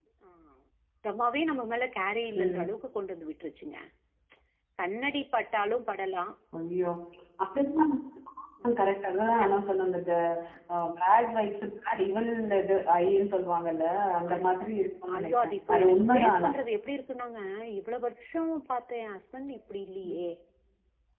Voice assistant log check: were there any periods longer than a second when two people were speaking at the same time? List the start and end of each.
15.2-16.5

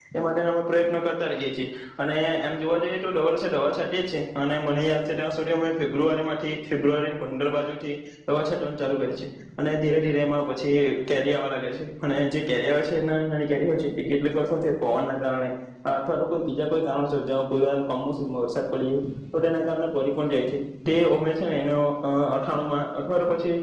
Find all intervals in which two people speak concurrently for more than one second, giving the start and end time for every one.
none

